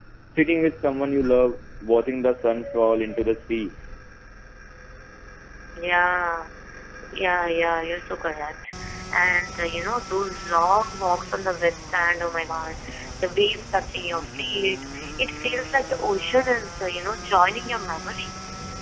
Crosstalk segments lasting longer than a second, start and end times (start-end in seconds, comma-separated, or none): none